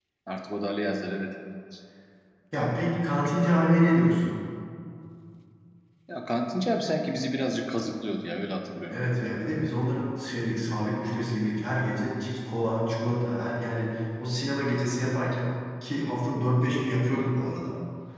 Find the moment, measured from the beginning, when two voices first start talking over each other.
none

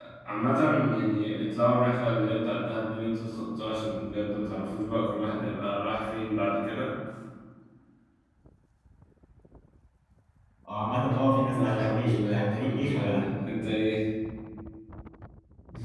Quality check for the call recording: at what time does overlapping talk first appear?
11.5 s

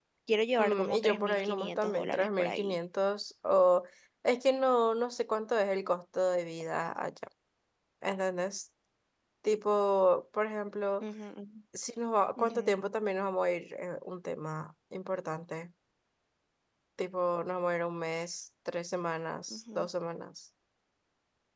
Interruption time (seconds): 0.6 s

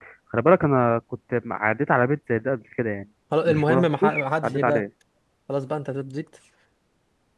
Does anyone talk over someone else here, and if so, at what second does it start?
3.3 s

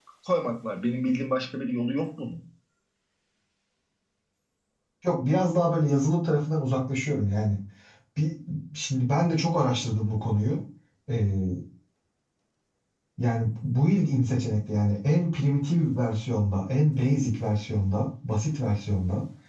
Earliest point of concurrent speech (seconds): none

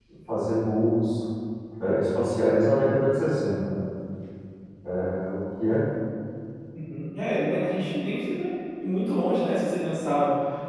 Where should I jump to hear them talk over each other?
none

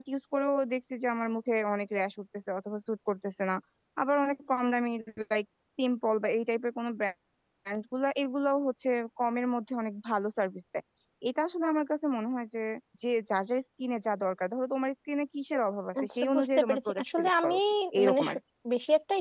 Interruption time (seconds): 15.9 s

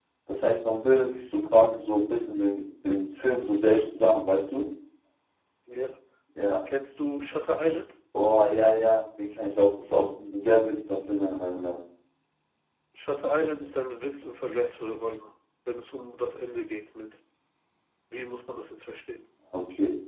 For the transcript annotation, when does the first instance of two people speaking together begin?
none

